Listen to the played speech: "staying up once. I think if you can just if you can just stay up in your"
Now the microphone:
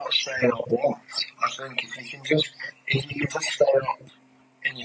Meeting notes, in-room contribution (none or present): none